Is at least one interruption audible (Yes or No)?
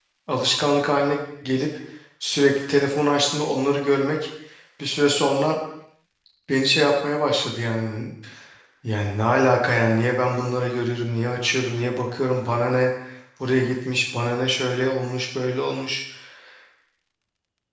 No